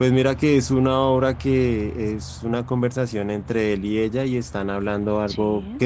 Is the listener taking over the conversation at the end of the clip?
No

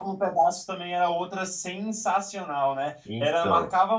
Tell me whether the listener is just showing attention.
Yes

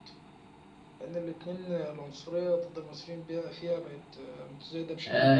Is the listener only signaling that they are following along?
No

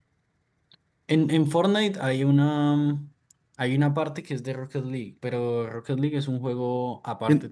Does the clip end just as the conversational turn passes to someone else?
Yes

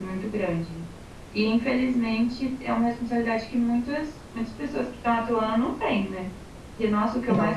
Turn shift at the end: No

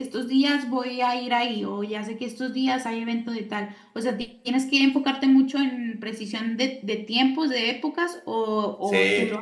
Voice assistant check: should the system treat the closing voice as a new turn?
Yes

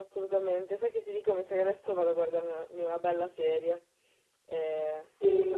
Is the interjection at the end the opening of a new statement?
Yes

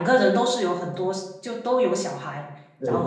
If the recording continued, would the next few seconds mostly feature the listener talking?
No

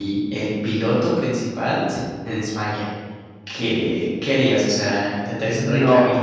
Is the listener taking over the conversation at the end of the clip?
No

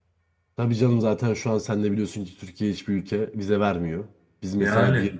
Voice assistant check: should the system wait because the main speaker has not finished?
Yes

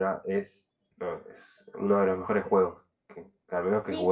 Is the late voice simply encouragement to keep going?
No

